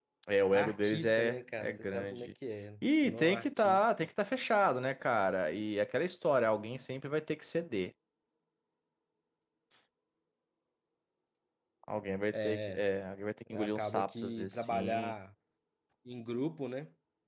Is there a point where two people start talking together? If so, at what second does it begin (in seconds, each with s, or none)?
0.5 s